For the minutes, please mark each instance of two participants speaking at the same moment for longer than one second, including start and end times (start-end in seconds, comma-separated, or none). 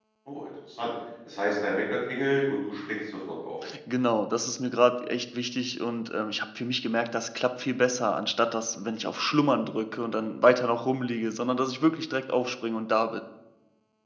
none